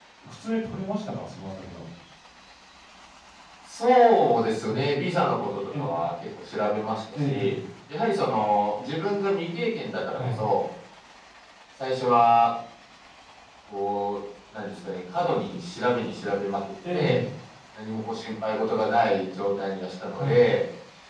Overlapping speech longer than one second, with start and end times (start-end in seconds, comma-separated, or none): none